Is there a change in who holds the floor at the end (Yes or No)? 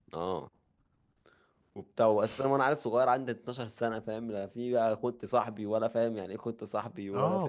Yes